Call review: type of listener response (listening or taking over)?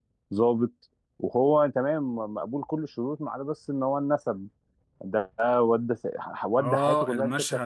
taking over